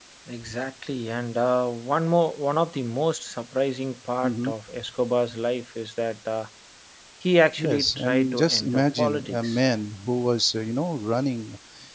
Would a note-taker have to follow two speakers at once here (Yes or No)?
Yes